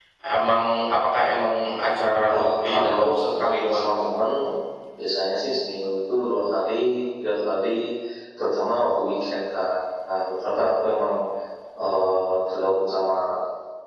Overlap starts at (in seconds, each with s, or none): 2.3 s